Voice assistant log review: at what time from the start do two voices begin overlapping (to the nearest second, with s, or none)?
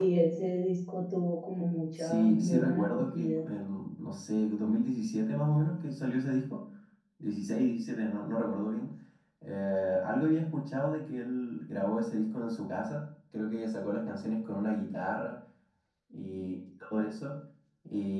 2 s